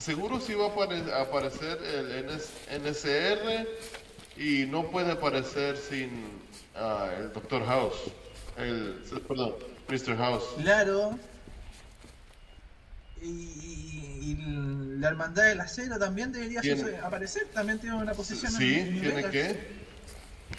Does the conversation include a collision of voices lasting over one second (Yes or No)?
Yes